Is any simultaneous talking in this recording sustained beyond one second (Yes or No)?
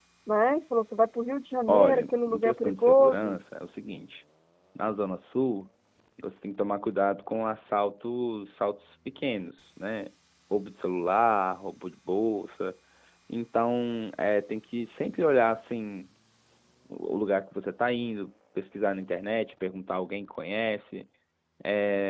Yes